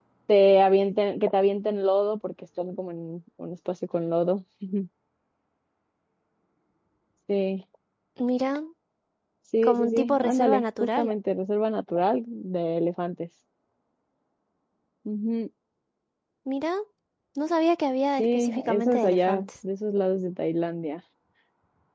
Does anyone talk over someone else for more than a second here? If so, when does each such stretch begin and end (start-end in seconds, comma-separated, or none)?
9.6-11.1, 18.2-19.5